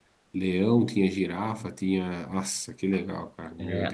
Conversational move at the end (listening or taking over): taking over